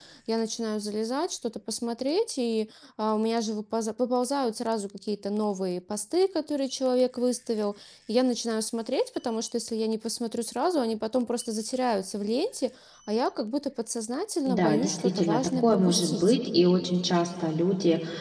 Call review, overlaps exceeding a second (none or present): present